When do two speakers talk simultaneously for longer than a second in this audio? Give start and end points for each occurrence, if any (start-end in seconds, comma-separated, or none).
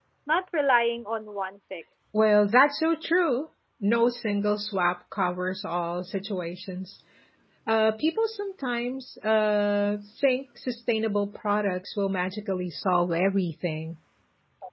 none